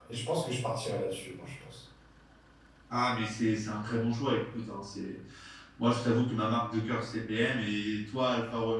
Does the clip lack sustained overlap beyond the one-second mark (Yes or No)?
Yes